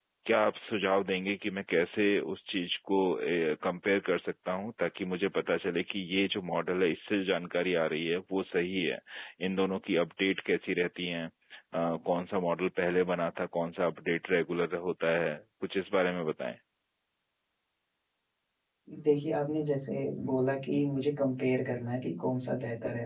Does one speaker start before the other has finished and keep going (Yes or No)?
No